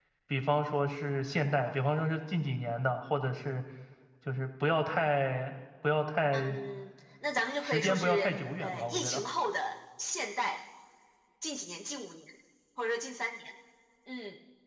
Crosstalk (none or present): present